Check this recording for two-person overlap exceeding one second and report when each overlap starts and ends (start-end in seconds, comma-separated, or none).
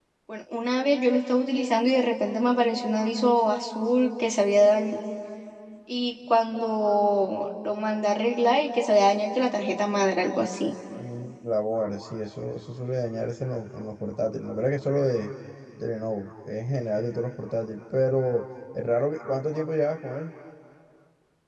none